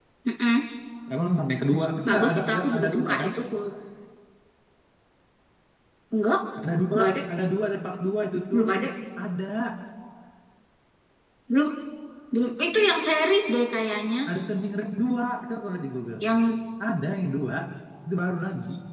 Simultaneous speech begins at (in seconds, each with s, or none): 2.1 s